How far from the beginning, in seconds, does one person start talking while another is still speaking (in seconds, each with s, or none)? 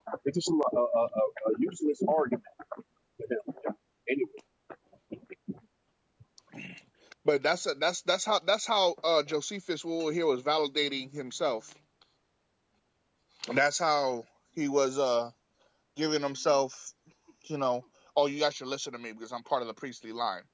none